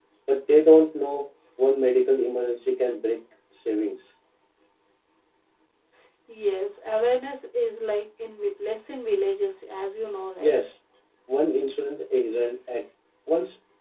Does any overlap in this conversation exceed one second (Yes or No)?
No